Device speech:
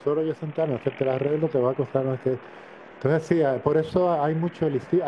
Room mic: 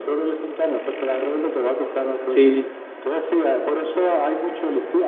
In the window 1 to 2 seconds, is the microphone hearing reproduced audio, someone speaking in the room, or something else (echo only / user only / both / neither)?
echo only